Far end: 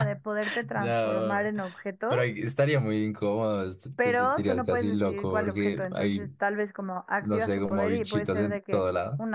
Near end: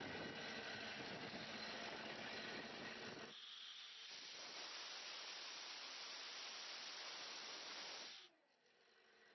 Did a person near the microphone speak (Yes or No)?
No